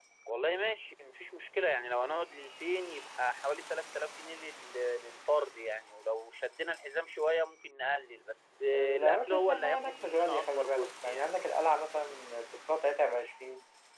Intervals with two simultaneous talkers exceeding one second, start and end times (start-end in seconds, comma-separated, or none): 8.8-11.3